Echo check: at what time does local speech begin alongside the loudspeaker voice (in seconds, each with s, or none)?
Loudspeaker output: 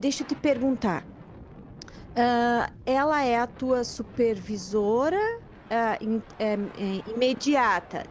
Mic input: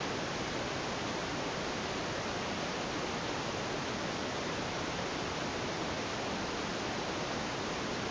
none